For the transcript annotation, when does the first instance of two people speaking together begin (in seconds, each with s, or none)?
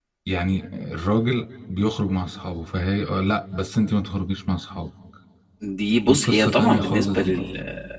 6.1 s